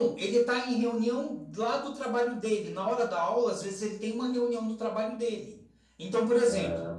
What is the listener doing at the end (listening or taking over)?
listening